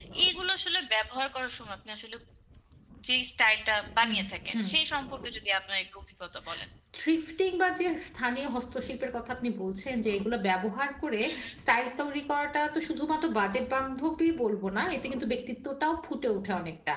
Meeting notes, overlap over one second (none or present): none